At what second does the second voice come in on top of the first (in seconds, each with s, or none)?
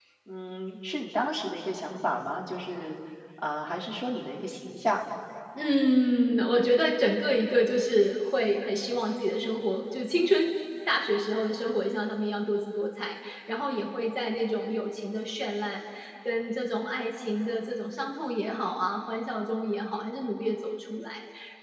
none